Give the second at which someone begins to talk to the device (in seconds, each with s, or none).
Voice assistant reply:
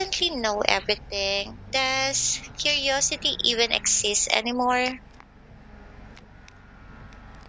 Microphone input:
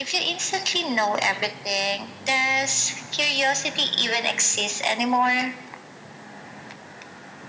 none